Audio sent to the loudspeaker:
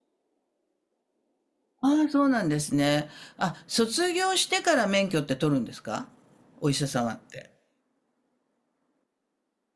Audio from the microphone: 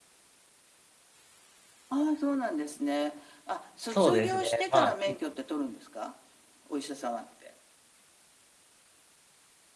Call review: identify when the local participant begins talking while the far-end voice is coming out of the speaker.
3.8 s

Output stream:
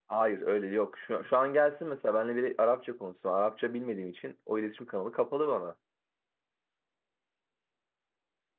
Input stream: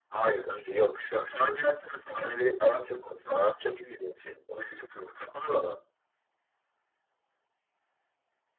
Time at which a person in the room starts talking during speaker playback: none

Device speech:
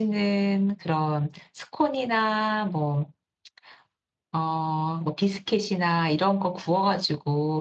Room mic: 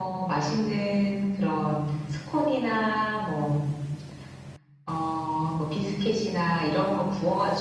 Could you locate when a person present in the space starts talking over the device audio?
none

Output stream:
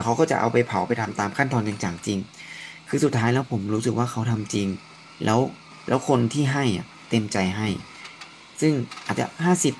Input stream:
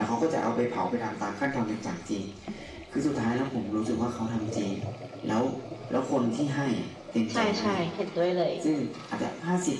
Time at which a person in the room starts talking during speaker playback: 7.3 s

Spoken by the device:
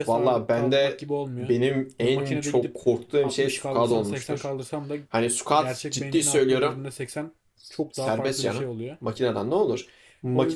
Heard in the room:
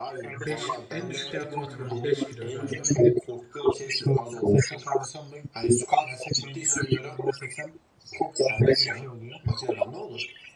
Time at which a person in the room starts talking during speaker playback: 0.3 s

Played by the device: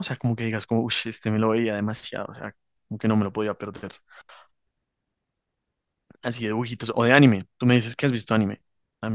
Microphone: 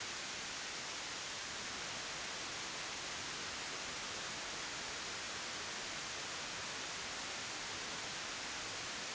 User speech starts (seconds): none

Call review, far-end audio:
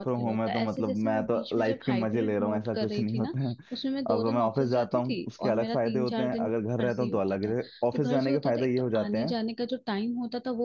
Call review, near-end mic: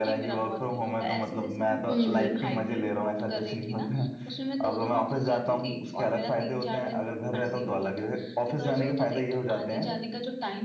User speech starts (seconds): 1.9 s

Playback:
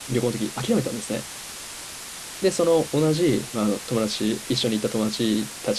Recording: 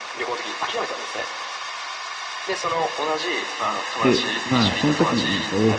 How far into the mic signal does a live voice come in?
4.0 s

